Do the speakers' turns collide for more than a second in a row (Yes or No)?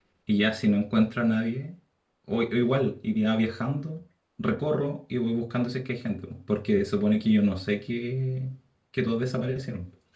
No